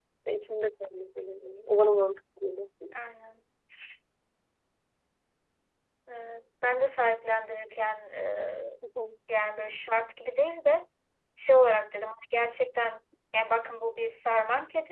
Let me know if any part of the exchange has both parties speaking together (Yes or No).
No